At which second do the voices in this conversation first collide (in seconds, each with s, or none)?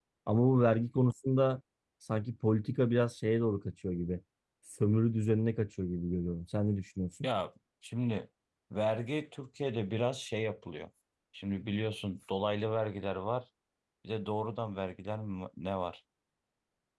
none